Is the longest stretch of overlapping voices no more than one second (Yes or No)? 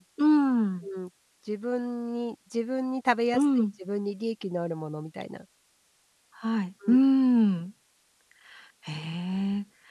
Yes